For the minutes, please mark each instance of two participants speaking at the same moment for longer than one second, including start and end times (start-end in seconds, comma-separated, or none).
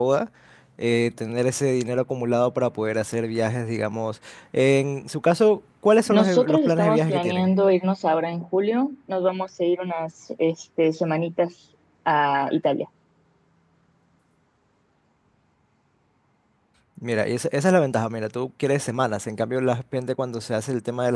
6.1-7.5